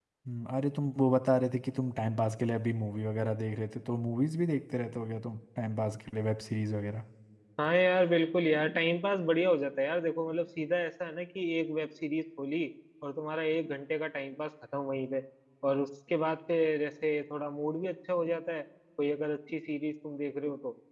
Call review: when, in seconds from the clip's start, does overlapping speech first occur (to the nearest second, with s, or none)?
none